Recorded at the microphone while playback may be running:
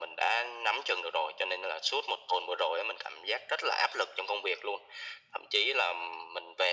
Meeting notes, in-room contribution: none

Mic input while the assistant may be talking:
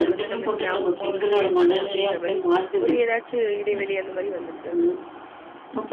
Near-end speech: present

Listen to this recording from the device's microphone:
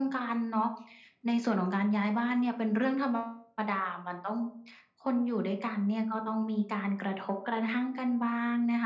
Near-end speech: none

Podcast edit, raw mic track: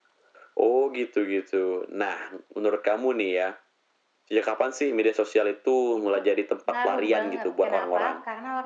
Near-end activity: present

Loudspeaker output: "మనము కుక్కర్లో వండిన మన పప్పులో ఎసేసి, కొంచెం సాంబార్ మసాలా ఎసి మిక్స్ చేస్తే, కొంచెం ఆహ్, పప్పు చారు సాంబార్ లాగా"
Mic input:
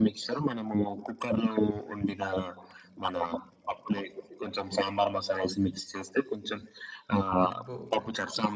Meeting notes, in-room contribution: present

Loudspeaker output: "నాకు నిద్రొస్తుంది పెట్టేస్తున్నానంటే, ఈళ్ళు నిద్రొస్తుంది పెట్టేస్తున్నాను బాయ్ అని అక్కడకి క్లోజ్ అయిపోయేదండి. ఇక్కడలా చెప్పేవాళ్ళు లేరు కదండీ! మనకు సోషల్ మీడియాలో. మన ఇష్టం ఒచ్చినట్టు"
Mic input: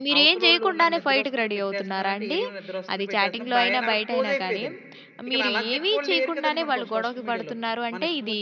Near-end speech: present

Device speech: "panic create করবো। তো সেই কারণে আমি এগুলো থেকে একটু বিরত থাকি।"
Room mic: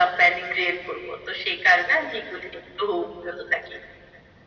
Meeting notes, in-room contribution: none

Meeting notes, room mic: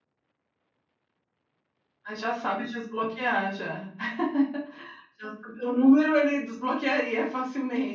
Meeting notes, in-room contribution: present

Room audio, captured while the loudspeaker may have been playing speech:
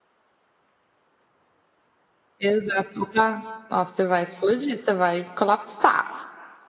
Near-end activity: present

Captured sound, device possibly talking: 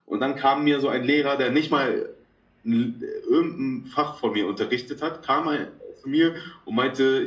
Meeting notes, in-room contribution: none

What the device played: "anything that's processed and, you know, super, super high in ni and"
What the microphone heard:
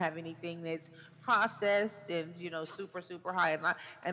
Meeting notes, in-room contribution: none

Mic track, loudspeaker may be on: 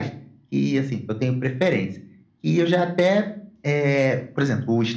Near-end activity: none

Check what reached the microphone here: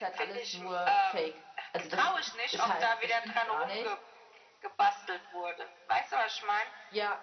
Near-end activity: present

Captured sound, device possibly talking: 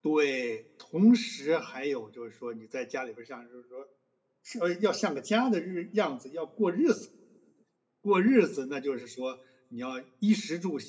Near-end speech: present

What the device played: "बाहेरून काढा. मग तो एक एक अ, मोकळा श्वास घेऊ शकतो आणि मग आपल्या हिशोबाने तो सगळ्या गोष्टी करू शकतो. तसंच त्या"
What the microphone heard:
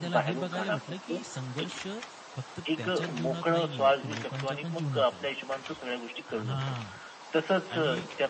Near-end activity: present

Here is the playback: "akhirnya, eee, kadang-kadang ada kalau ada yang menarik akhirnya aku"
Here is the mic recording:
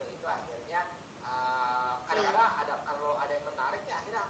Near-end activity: present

